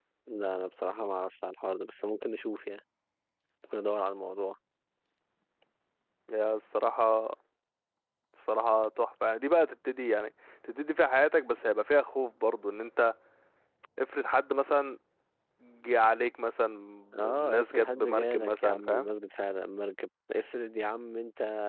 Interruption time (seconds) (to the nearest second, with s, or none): 17 s